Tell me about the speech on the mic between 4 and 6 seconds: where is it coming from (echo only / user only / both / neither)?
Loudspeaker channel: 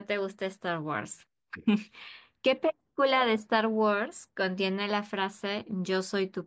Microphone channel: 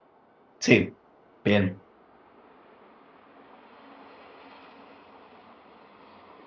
neither